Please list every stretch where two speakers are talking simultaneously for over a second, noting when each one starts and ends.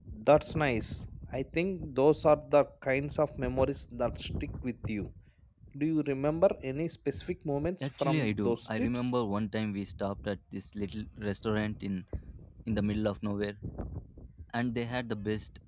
7.8-9.1

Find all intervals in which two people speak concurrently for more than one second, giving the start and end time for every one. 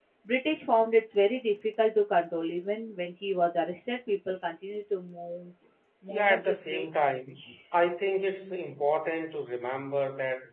6.1-7.4

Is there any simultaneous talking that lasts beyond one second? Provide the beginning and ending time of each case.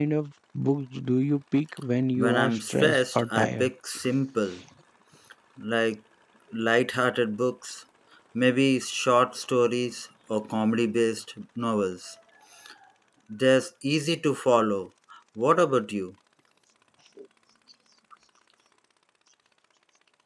2.2-3.7

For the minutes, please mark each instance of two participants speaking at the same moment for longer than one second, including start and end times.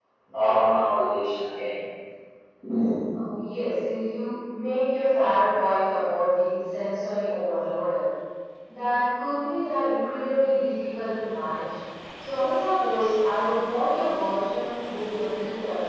none

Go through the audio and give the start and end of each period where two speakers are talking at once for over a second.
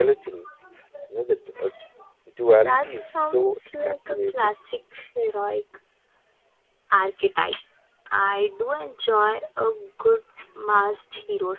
2.6-4.5

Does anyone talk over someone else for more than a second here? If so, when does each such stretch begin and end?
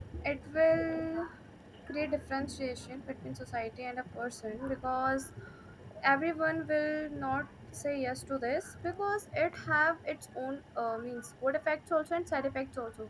none

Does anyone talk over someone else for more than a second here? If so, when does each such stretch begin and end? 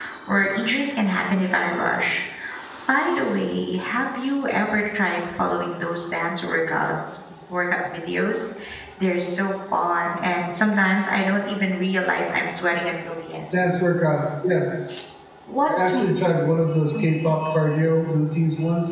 none

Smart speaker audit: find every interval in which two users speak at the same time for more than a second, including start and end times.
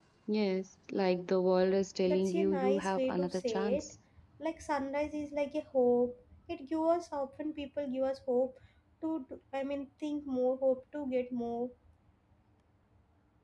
2.1-3.9

